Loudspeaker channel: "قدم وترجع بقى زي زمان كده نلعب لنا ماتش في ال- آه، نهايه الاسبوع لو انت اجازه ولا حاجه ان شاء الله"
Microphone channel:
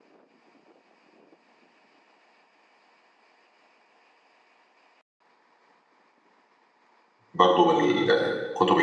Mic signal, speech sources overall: user only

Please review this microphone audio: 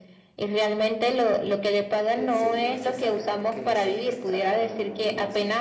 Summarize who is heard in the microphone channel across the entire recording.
both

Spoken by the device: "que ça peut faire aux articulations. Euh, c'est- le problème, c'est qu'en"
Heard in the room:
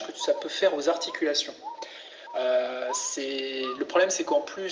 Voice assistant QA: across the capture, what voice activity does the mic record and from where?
echo only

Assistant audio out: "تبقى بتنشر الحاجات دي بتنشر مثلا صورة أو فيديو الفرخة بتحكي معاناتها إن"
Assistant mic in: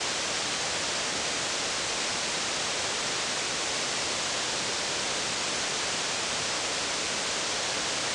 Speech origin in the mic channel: neither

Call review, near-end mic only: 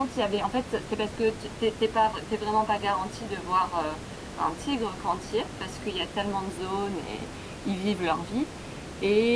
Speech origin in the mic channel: user only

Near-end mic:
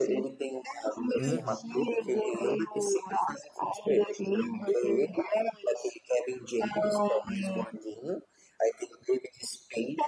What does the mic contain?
both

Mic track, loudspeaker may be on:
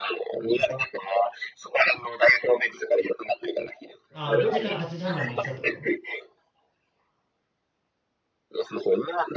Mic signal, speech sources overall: both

